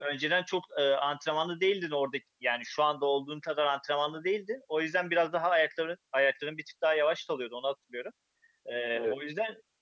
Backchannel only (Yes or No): Yes